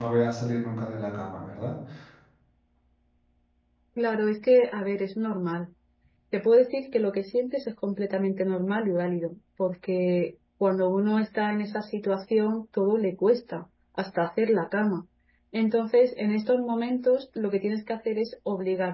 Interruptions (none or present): none